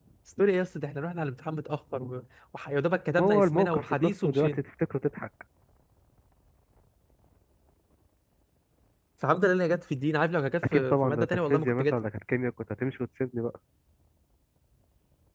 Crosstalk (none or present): present